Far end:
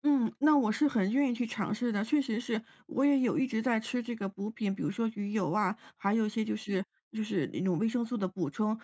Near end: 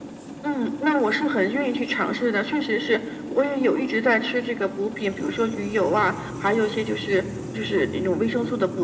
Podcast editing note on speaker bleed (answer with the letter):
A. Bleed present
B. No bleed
A